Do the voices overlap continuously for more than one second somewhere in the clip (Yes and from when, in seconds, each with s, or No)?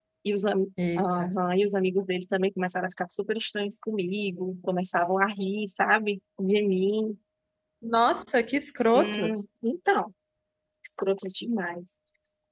No